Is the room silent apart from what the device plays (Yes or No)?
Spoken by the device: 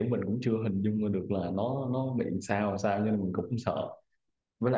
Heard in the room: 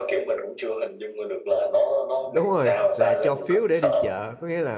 No